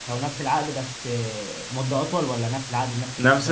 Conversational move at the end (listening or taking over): taking over